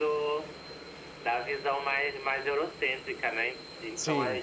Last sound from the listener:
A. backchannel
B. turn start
A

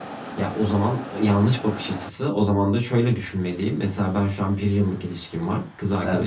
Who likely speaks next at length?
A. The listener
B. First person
B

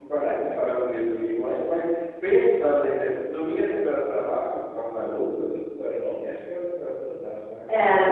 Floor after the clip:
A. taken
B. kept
B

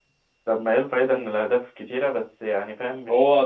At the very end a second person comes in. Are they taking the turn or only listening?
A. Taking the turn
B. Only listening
A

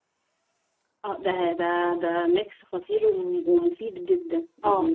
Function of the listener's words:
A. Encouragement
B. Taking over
B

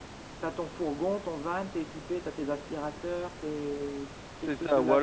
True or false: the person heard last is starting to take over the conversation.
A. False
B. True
B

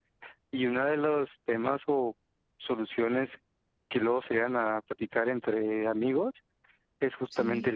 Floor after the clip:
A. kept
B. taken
A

